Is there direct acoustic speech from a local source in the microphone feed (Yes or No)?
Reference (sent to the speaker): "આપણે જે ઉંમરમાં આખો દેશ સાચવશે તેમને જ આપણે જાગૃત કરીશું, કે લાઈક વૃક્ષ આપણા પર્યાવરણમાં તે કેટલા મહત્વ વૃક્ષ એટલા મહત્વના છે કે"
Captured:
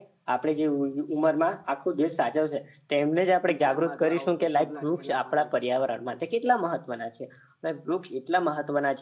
Yes